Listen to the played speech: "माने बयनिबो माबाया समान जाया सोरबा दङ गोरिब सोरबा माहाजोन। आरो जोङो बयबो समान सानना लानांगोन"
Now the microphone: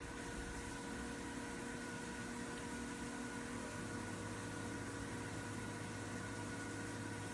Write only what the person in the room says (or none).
none